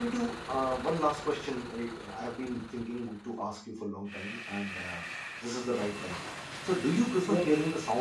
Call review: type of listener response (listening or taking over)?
listening